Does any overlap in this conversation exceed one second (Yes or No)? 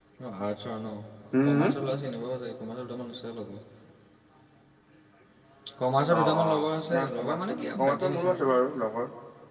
Yes